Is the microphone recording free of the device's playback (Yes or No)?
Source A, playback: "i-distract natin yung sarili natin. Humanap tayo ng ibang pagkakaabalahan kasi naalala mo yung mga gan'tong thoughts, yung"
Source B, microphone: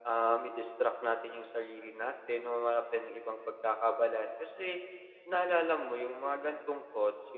No